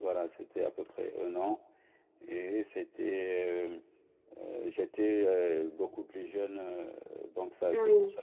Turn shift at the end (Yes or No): No